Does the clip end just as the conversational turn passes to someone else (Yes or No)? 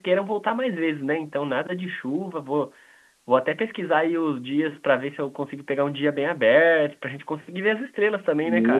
Yes